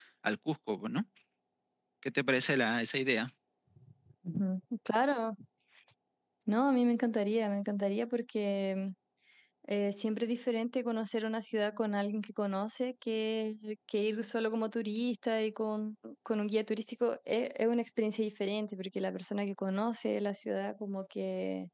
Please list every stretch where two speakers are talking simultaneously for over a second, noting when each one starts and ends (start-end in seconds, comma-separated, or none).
none